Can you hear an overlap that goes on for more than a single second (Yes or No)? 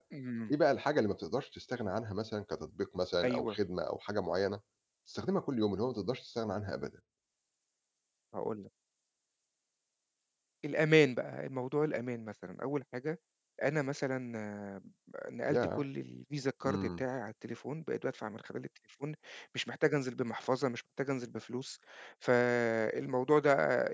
No